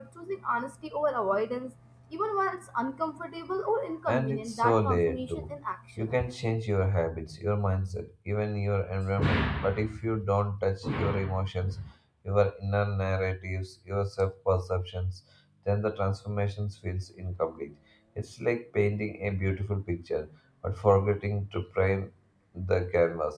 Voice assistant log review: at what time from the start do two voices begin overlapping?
4 s

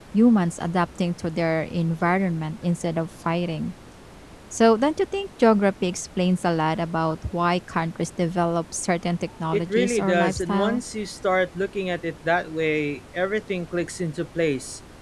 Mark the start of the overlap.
10 s

